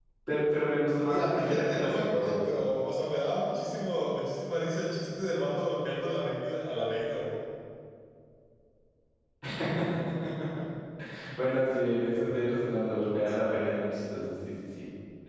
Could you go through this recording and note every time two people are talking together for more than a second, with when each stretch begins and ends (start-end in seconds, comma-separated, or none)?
1.1-2.4